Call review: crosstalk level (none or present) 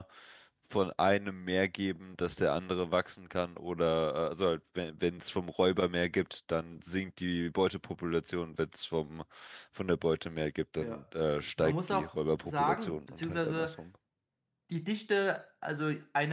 present